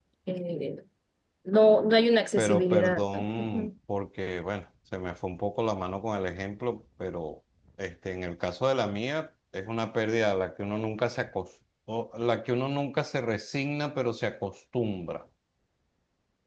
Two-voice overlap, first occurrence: 2.4 s

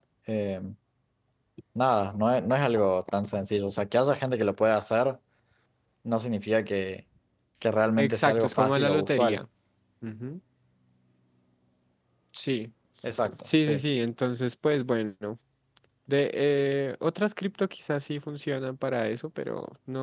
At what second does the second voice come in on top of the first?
8.0 s

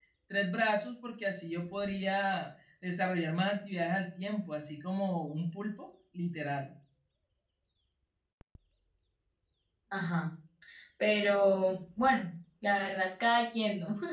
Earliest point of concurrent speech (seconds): none

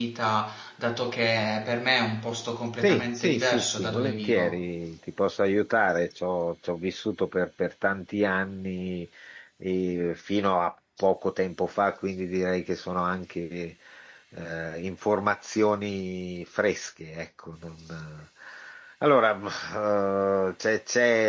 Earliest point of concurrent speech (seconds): 2.8 s

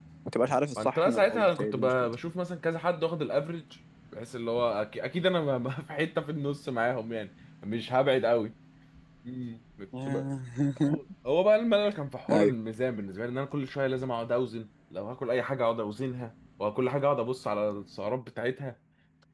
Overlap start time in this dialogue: 0.8 s

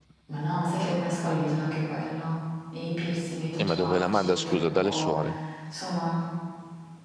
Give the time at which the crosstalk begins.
3.6 s

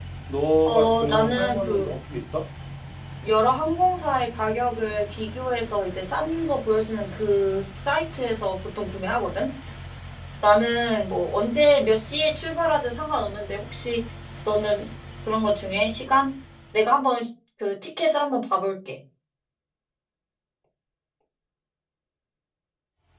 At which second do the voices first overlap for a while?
0.7 s

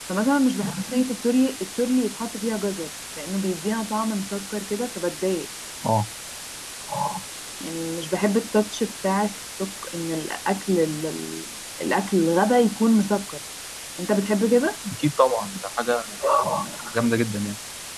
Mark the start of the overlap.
none

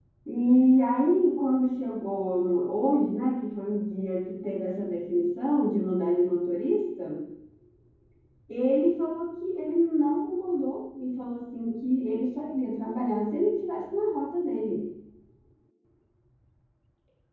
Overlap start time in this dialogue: none

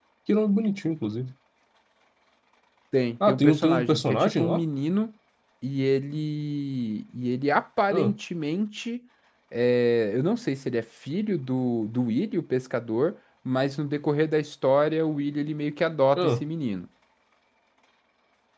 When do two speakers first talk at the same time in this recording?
3.3 s

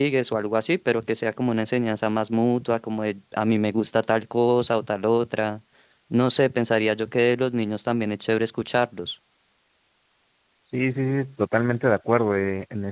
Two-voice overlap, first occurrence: none

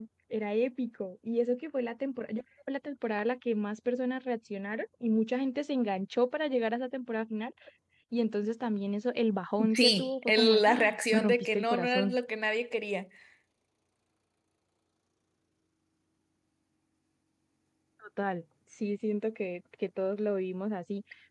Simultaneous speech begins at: 9.6 s

